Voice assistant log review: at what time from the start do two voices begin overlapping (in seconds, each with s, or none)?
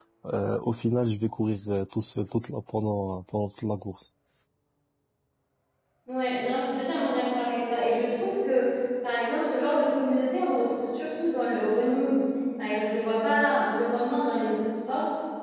none